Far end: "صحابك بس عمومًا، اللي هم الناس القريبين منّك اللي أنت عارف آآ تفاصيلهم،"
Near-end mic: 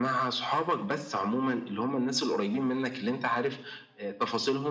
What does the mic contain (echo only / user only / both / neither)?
echo only